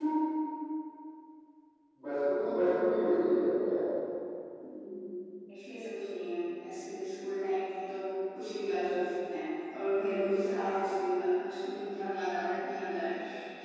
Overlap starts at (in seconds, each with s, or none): none